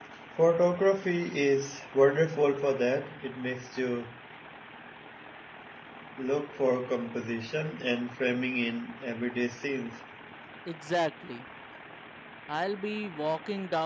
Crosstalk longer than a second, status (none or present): none